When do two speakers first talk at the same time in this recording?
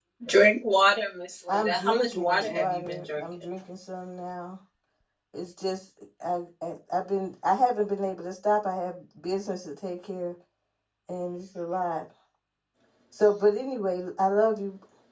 1.5 s

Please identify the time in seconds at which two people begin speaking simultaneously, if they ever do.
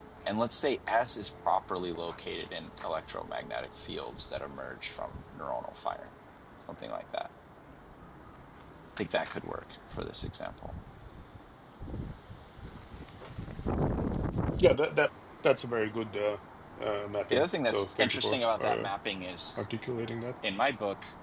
17.3 s

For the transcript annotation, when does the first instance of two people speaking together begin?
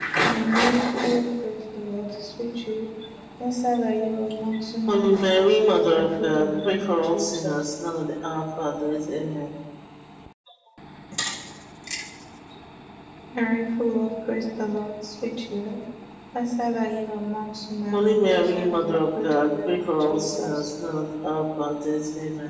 4.9 s

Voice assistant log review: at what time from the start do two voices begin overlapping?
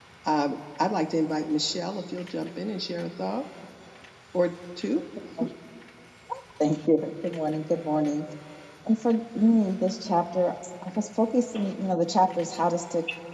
none

